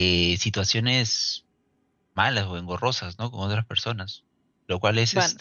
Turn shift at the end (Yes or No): No